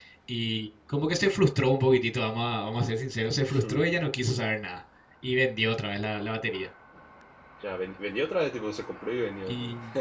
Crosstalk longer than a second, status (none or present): none